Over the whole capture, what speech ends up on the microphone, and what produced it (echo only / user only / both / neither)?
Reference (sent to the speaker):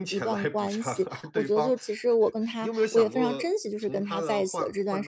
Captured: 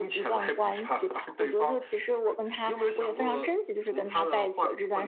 echo only